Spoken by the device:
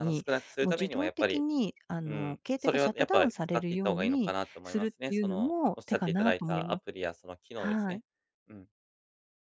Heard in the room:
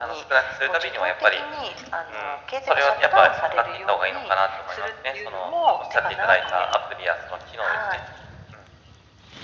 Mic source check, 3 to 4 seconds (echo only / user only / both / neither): echo only